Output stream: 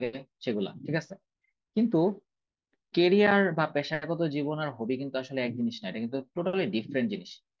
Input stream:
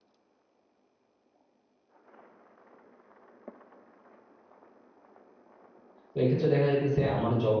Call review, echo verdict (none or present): none